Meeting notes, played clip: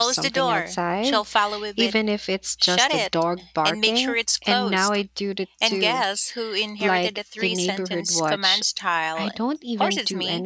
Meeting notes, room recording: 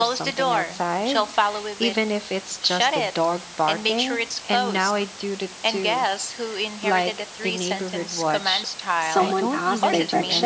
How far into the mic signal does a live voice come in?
9.0 s

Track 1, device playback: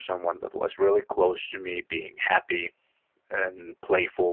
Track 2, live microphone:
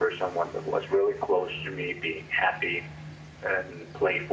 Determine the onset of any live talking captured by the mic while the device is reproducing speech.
none

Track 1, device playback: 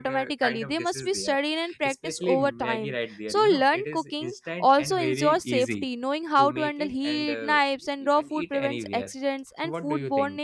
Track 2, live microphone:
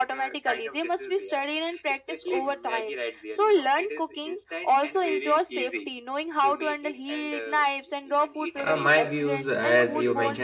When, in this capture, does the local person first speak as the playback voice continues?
8.6 s

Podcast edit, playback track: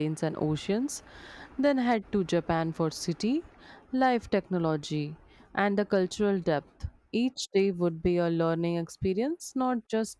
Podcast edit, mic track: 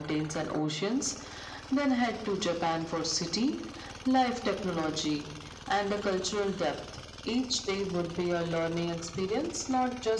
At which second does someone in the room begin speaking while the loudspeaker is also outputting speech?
none

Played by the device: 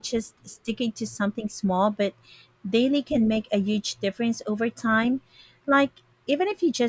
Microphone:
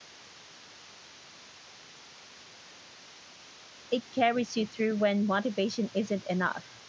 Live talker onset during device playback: 3.9 s

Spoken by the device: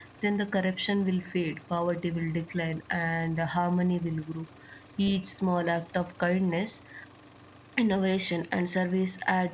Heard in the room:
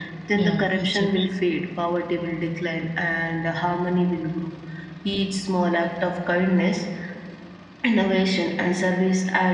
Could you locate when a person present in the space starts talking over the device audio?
0.3 s

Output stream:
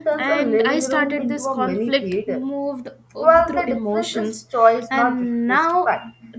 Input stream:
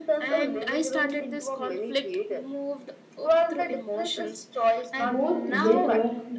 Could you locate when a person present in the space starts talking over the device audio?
5.0 s

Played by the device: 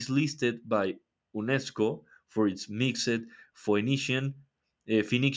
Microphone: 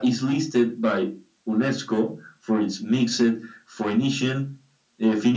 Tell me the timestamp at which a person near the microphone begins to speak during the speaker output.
none

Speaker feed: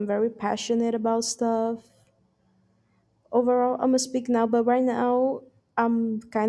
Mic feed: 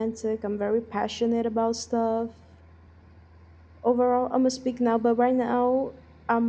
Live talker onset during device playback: none

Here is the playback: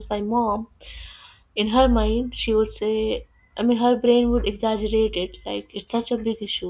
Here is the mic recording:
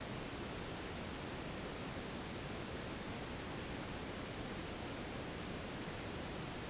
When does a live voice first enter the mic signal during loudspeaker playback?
none

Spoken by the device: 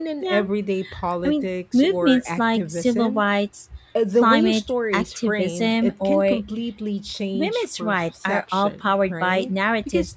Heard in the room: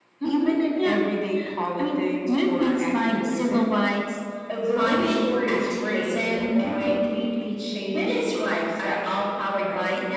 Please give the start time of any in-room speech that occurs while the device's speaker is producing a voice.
none

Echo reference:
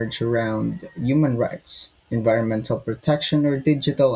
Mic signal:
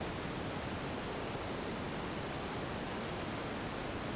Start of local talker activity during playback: none

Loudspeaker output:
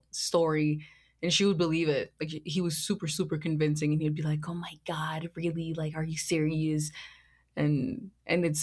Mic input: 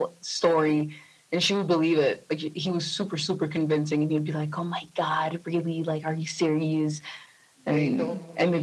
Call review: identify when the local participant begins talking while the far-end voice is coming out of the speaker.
7.7 s

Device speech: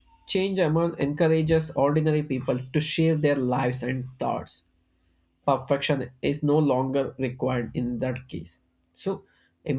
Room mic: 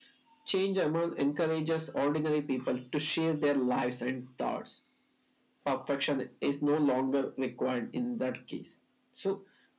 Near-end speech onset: none

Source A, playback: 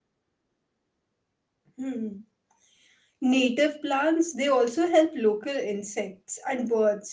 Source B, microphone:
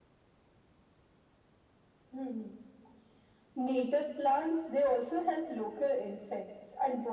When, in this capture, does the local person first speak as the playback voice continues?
none

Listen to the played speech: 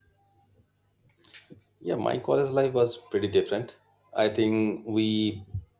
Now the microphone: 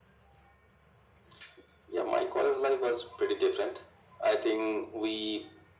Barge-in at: none

